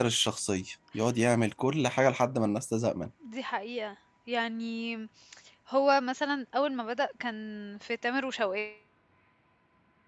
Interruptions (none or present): none